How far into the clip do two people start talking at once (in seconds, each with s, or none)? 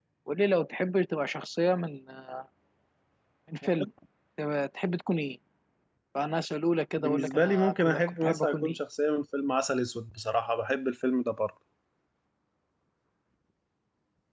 7.0 s